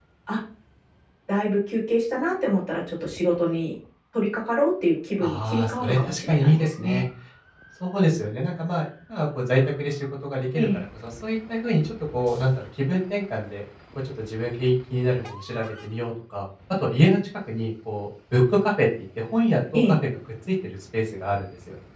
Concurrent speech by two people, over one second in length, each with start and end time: 5.2-7.0

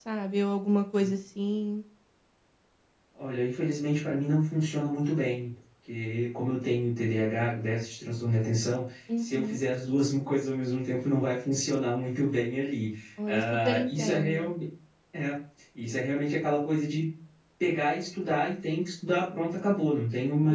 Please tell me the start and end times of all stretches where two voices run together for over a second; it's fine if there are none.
13.3-14.5

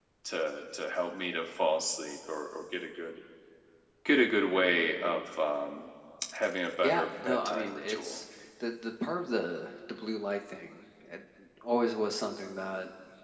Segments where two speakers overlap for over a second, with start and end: 6.8-8.2

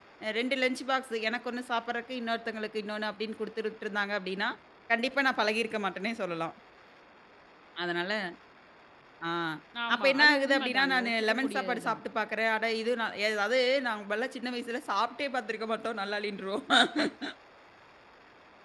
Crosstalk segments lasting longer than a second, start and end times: 9.9-12.0

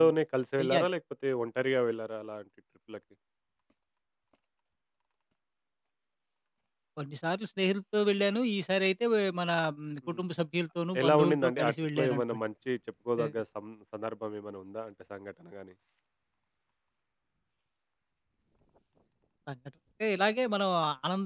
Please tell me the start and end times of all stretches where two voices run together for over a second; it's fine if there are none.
11.0-12.4

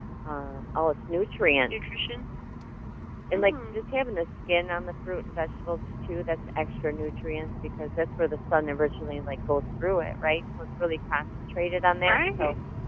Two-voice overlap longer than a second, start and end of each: none

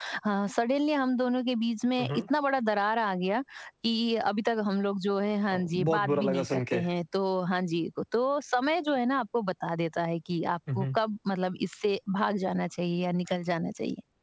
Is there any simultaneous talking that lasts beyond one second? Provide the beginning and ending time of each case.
5.5-6.8

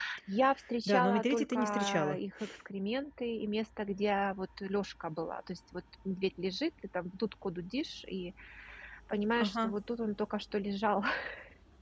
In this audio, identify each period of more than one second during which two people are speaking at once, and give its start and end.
0.9-2.2

